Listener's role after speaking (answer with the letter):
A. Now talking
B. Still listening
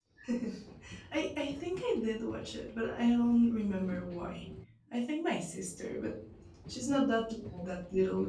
B